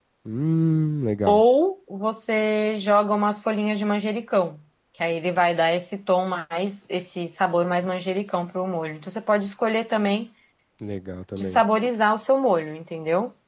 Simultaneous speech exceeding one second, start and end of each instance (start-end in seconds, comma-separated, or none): none